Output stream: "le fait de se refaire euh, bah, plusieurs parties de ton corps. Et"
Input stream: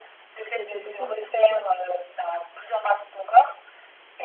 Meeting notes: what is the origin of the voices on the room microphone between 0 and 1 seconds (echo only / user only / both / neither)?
both